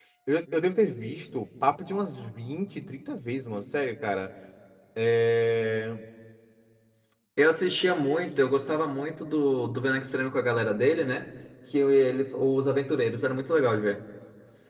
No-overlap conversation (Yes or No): Yes